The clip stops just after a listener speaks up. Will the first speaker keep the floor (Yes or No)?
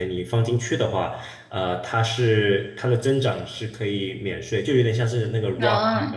Yes